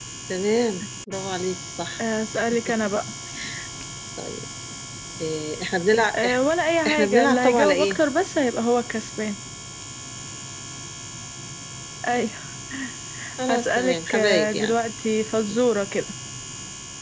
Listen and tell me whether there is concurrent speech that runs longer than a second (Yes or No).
Yes